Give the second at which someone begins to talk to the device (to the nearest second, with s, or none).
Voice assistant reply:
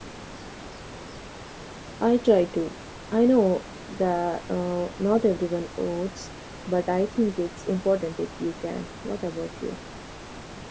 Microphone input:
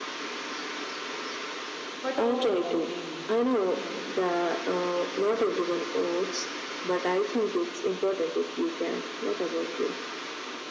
2 s